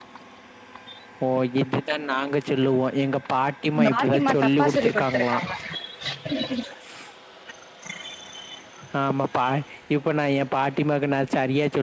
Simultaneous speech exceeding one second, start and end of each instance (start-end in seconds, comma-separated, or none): 3.9-5.4